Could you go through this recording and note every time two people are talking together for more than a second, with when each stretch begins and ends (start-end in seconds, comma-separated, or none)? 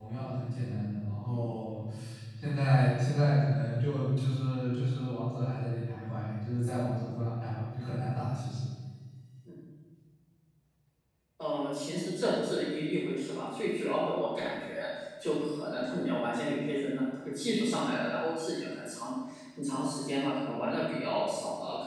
none